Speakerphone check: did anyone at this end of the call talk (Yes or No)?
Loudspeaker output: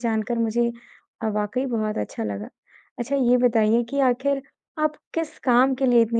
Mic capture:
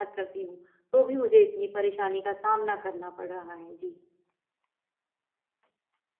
Yes